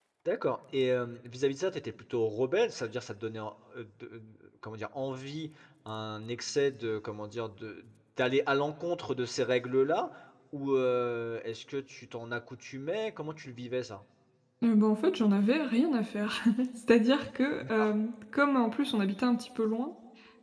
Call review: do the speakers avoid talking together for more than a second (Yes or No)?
Yes